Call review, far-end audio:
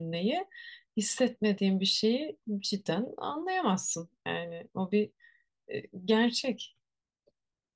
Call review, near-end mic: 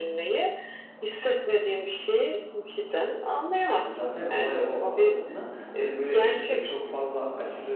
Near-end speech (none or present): present